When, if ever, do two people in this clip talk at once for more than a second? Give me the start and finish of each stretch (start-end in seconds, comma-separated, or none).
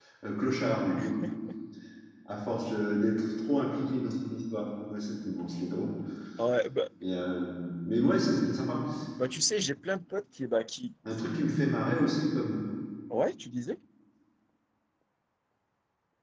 none